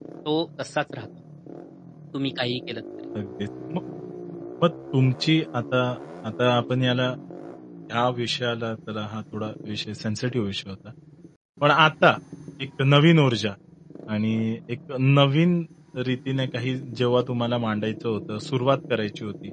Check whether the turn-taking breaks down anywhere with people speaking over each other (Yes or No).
No